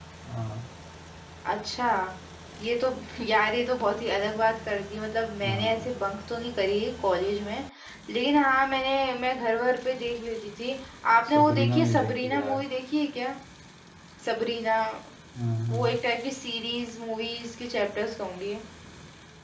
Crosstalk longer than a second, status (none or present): present